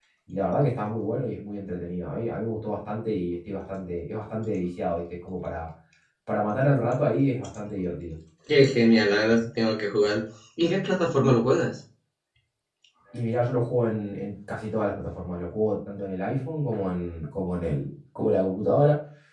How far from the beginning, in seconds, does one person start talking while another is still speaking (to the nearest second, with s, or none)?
none